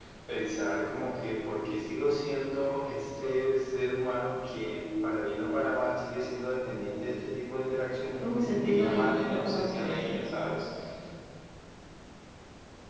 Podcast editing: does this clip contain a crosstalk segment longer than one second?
Yes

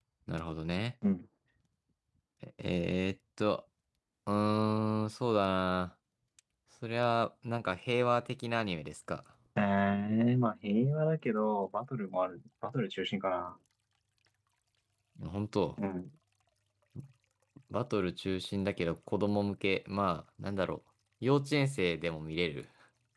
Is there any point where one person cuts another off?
No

